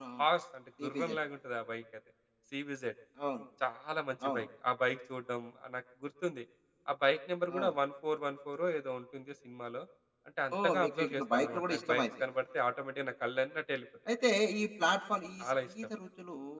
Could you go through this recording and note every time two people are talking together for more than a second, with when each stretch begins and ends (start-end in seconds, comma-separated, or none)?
10.6-12.0